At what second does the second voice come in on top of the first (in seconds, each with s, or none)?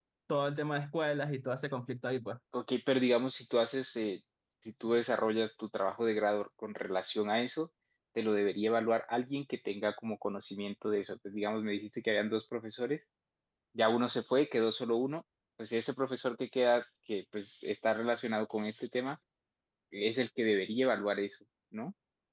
none